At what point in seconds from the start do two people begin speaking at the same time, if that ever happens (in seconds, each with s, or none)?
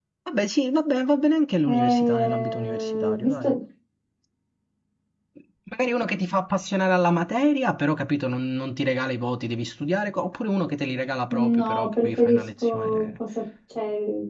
1.6 s